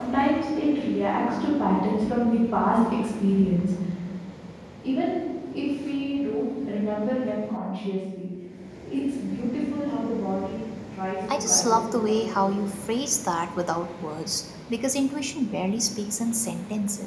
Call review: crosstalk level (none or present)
present